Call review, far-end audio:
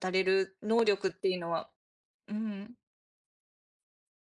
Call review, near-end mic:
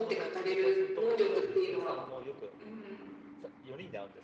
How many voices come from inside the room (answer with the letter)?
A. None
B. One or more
B